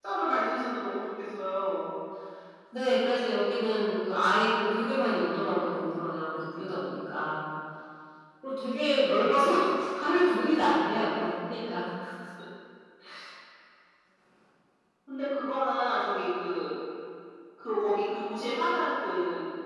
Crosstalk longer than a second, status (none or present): none